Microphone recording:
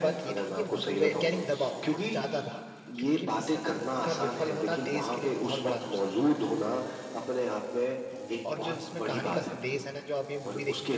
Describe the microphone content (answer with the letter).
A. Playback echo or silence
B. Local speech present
B